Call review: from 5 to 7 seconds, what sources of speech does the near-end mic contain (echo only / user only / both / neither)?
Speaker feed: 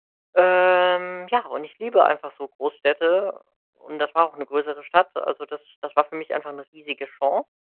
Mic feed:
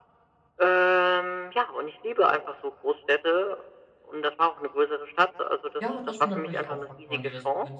both